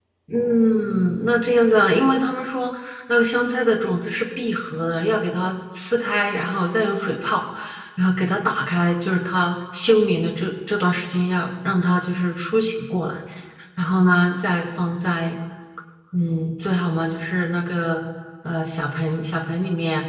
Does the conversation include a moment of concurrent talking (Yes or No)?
No